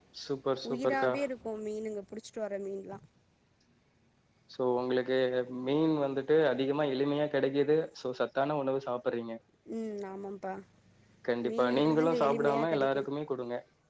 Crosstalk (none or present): present